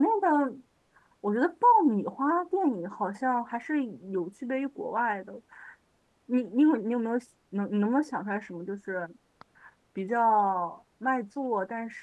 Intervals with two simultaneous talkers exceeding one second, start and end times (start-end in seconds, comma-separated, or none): none